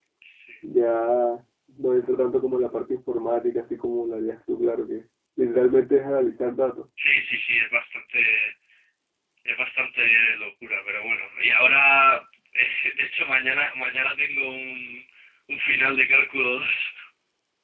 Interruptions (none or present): none